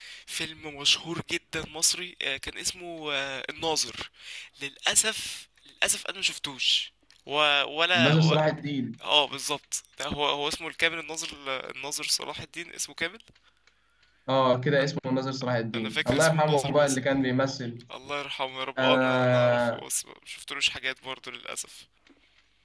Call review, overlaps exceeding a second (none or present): present